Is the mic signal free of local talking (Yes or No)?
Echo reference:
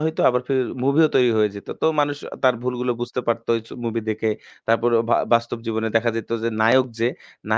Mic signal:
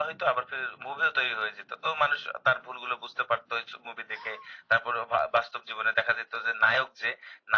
Yes